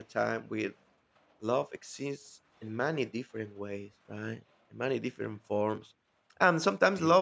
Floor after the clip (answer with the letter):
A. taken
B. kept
B